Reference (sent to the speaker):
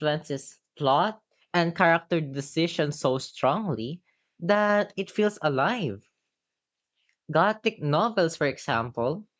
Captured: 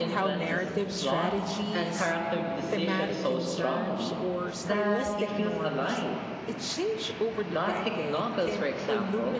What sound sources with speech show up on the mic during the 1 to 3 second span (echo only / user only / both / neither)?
both